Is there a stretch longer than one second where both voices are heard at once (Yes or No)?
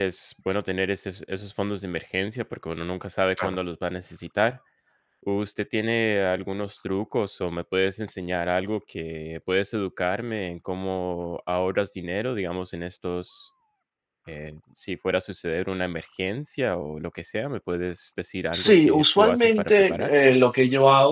Yes